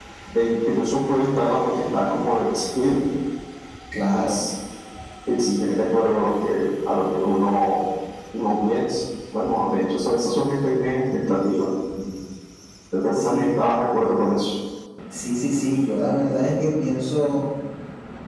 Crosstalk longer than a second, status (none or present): none